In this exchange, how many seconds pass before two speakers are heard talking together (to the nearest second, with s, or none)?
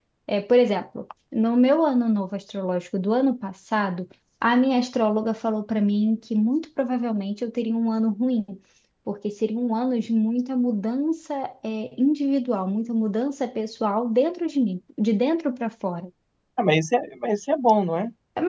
none